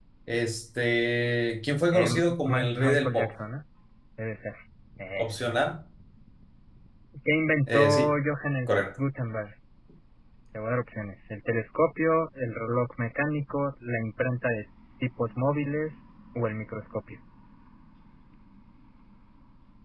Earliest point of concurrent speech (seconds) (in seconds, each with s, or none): 1.9 s